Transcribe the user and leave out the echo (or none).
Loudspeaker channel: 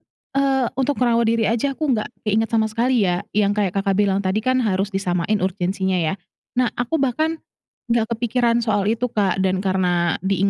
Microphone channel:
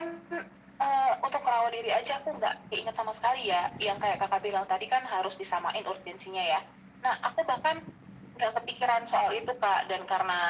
none